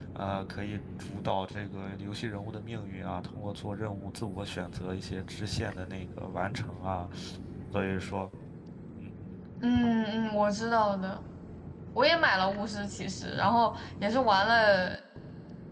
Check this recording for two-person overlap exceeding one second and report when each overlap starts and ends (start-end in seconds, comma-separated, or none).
none